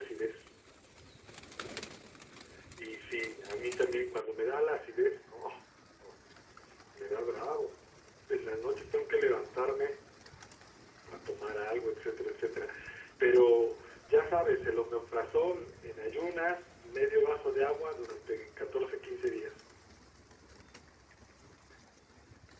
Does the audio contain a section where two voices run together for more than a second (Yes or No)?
No